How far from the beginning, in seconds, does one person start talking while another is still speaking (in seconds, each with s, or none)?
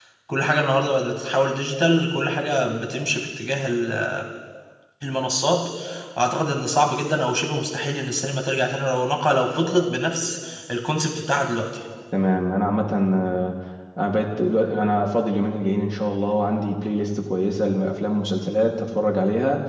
none